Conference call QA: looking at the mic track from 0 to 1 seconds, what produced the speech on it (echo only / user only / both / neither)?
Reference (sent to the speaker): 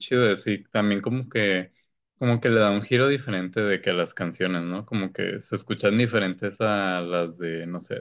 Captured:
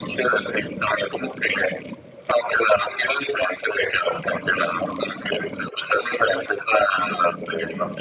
echo only